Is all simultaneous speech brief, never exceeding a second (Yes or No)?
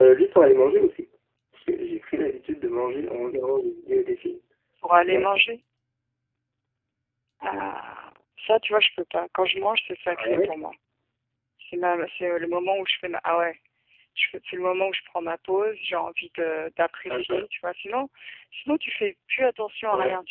Yes